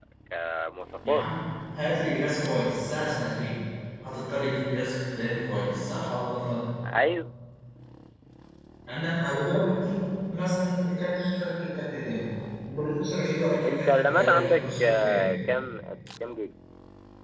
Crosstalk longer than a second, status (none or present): present